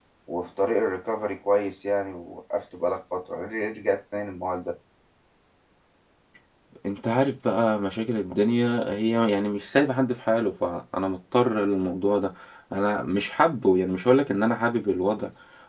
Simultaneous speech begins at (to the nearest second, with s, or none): none